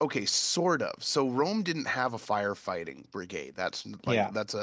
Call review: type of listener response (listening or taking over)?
listening